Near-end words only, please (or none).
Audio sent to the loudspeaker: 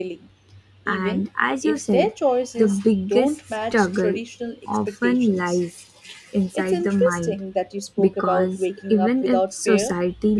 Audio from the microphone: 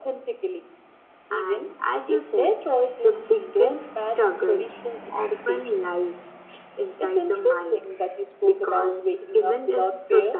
none